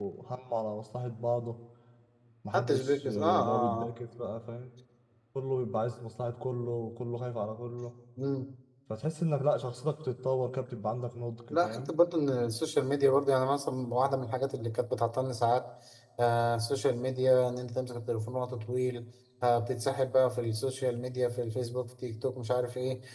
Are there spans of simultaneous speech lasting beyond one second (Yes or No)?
Yes